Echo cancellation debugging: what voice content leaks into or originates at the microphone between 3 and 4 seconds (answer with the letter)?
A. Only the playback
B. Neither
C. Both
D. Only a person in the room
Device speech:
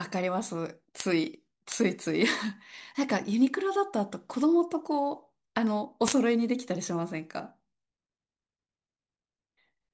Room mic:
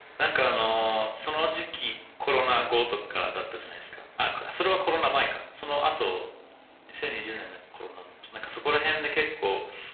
D